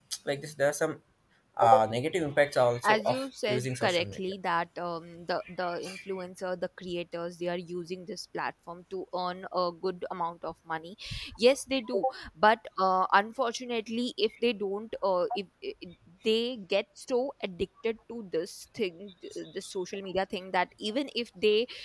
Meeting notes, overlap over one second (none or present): present